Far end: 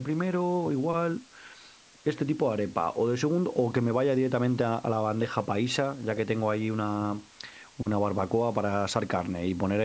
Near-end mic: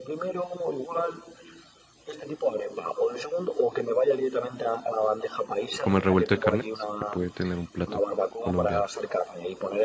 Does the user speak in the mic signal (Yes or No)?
Yes